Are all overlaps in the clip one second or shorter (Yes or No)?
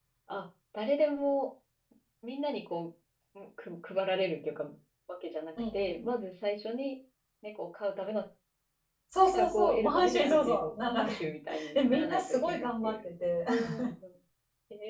No